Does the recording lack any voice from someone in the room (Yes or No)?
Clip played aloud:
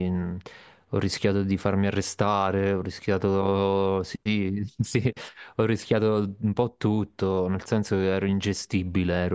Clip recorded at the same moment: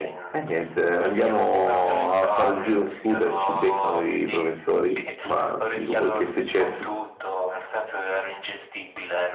No